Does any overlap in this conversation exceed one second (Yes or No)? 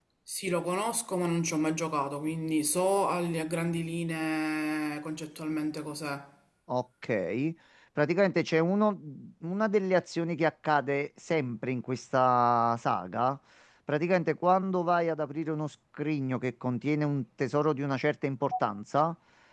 No